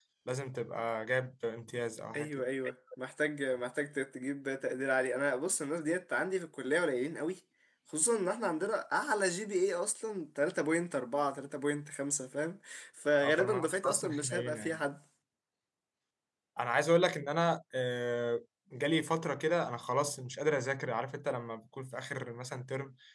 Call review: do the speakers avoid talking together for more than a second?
No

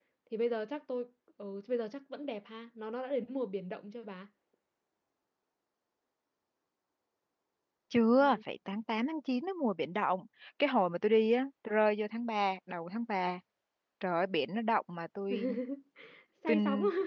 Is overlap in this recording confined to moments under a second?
Yes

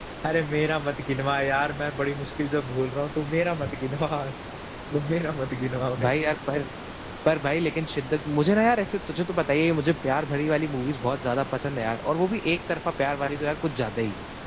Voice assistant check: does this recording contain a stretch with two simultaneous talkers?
No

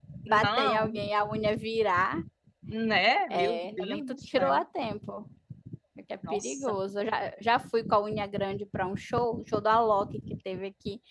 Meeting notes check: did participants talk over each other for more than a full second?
Yes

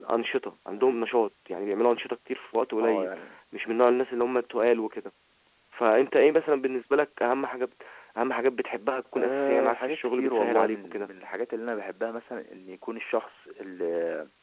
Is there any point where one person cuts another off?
Yes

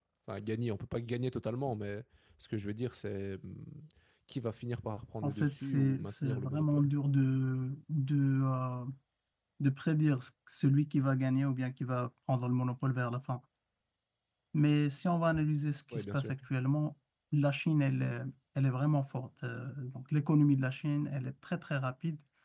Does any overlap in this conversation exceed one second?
Yes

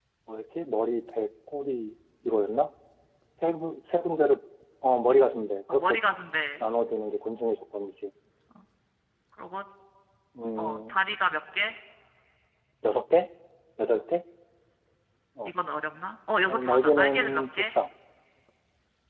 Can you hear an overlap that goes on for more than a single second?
Yes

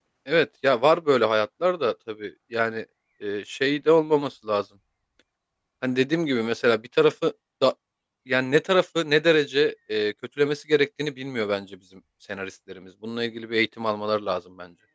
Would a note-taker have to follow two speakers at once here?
No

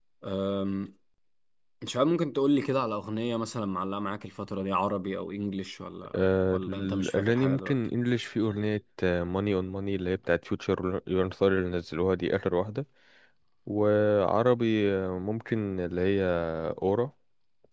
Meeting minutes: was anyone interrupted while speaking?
Yes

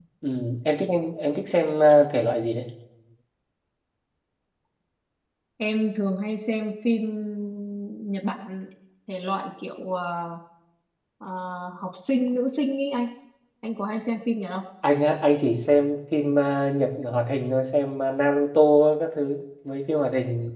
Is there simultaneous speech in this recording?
No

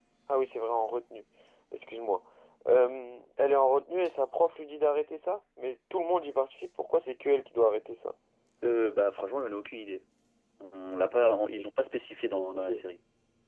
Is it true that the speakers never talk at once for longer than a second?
Yes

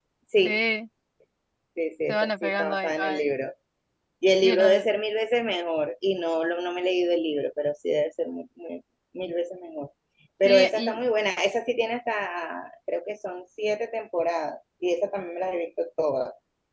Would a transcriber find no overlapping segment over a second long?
No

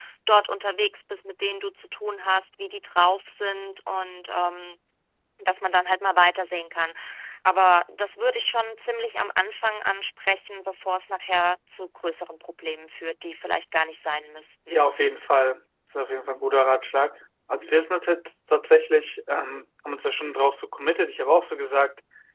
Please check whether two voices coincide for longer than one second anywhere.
No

